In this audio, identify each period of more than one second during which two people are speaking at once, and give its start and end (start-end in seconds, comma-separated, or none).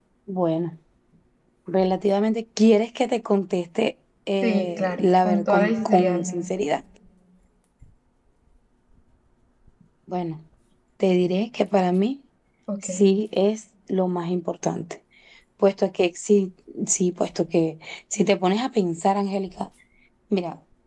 4.4-6.5